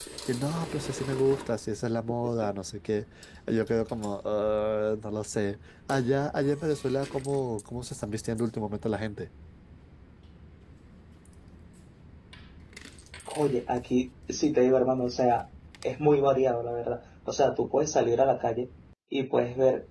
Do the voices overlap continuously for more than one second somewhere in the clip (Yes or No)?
No